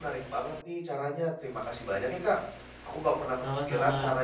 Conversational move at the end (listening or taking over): listening